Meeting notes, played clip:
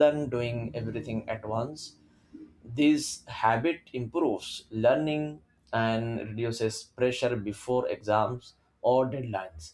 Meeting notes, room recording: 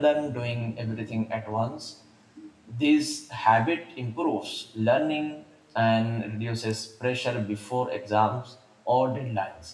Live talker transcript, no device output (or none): none